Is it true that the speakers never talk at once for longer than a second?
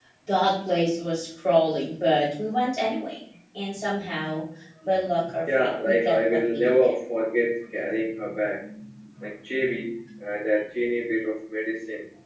No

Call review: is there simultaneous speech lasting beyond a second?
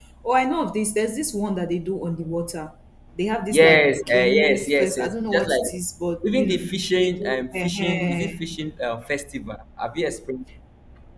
Yes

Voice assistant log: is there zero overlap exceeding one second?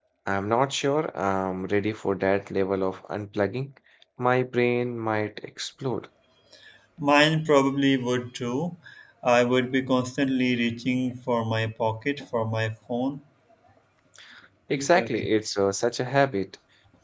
Yes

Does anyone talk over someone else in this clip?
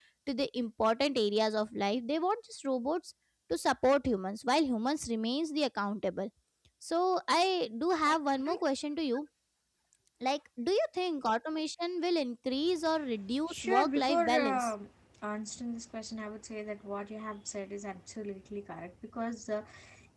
Yes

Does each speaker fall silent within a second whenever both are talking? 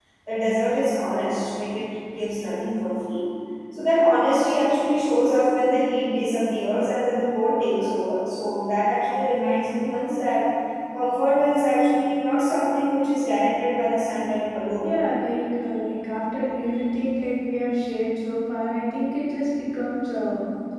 Yes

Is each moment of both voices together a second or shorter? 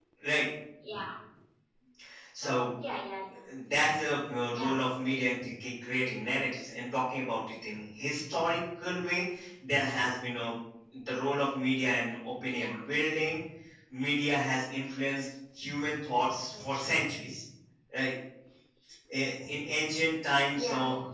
Yes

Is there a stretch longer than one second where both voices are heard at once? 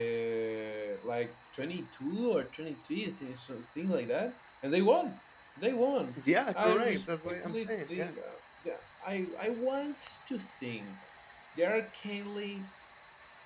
Yes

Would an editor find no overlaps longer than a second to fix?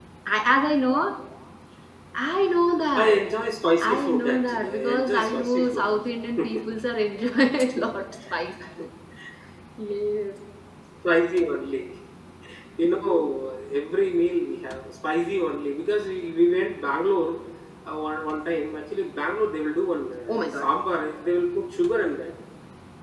No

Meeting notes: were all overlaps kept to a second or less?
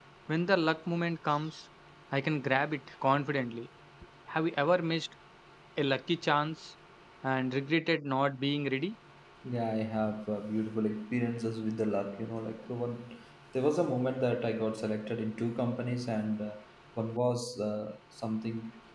Yes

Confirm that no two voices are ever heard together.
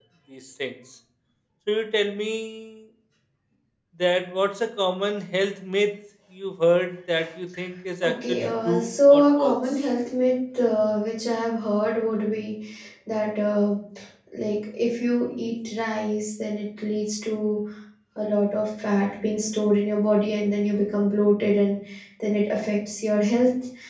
No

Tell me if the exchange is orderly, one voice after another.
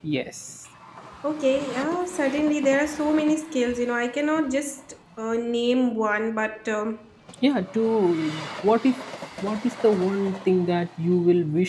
Yes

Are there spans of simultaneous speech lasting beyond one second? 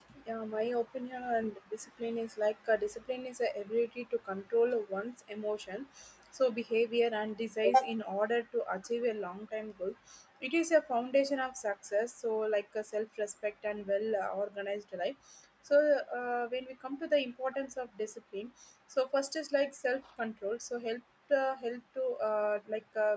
No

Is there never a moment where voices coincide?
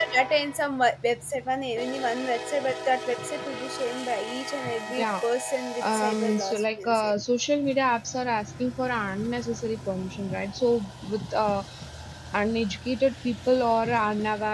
No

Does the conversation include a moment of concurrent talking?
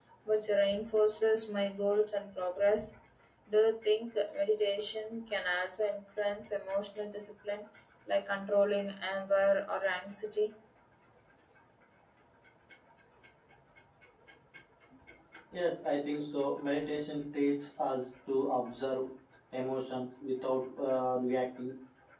No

